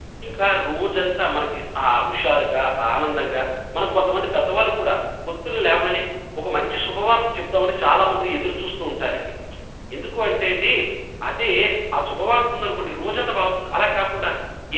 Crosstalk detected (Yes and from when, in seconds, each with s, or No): No